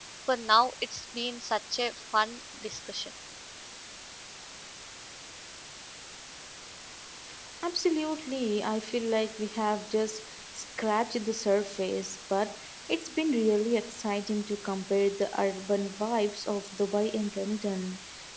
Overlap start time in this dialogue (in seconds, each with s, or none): none